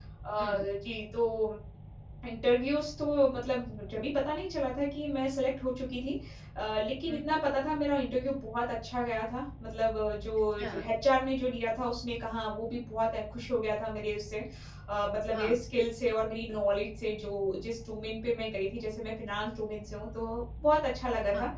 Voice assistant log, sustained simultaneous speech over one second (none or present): none